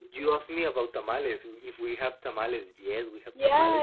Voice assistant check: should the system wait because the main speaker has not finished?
No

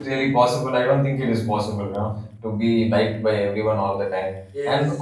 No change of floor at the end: Yes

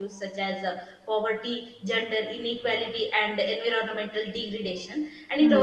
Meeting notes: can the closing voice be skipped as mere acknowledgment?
Yes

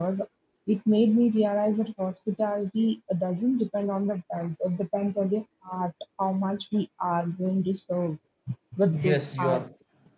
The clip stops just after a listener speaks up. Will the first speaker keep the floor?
No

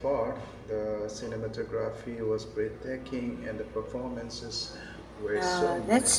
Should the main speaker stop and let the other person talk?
Yes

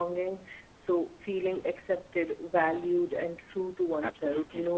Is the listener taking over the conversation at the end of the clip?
Yes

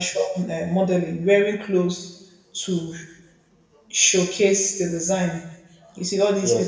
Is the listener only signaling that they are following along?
Yes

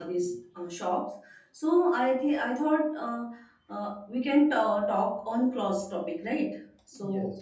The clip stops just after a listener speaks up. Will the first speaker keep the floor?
Yes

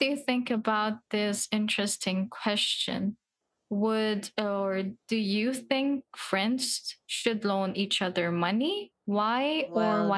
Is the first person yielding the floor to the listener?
Yes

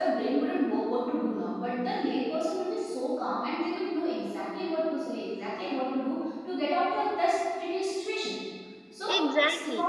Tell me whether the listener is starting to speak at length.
No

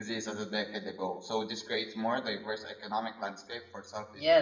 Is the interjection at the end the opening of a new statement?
Yes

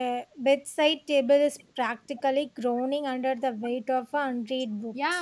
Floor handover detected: Yes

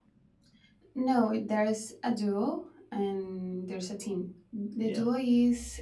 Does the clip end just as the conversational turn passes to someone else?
No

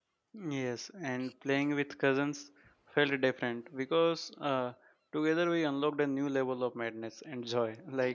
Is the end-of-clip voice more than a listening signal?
No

